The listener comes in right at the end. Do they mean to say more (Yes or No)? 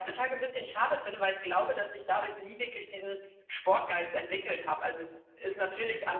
No